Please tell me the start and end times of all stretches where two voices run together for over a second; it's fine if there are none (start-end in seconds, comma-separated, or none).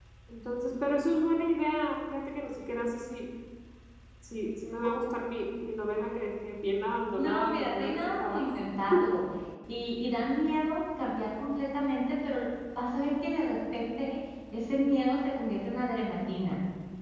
7.2-8.6